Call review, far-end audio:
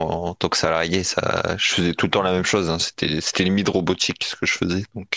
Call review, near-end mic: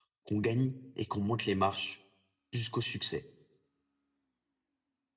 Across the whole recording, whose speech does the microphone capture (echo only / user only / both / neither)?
user only